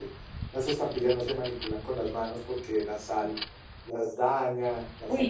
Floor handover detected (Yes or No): Yes